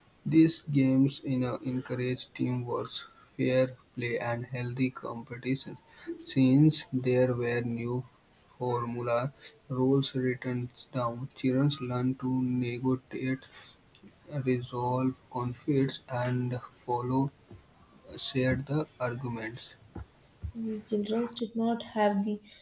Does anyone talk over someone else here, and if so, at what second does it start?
none

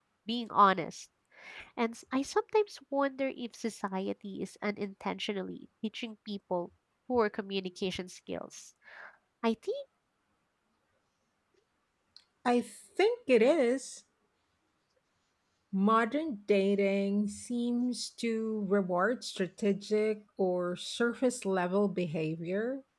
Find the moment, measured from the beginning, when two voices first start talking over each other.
none

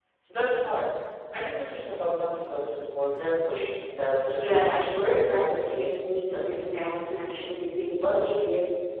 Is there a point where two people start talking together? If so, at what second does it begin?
4.4 s

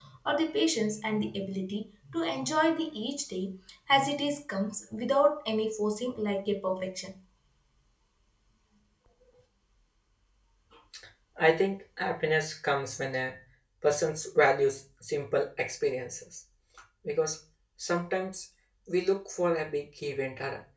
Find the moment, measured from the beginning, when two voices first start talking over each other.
none

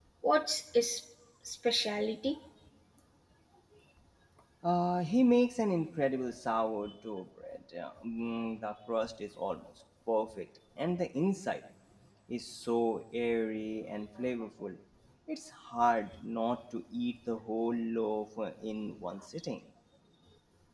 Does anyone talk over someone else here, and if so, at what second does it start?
none

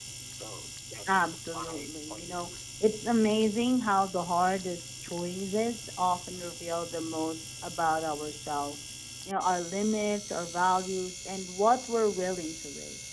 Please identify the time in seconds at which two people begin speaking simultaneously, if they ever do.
1.1 s

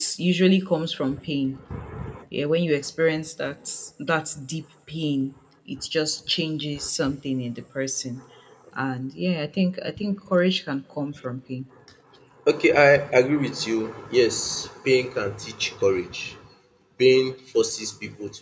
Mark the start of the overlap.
none

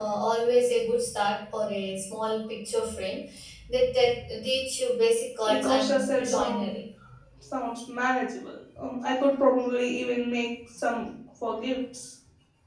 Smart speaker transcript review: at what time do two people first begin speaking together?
5.5 s

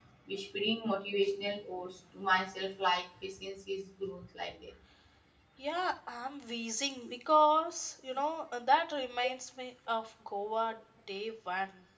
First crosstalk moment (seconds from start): none

